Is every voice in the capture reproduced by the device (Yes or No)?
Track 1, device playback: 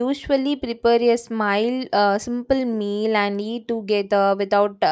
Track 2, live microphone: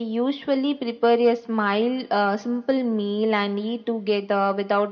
Yes